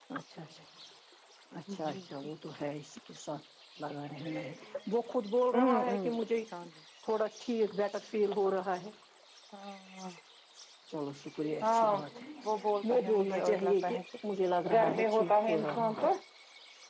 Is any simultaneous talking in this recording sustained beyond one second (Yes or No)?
Yes